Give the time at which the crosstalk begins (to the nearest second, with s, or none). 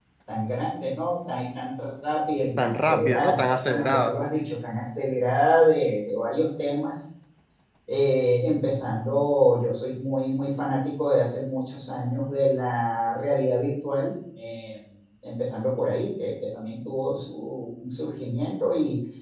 3 s